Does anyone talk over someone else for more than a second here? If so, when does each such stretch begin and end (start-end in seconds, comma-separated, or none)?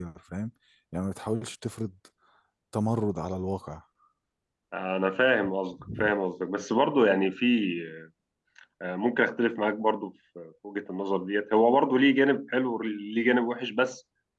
none